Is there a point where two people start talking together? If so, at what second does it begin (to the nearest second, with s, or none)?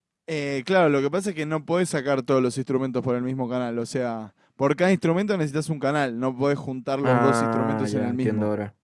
7 s